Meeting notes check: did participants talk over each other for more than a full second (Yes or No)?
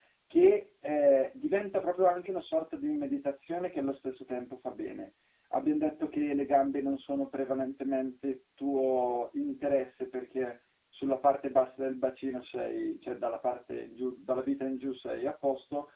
No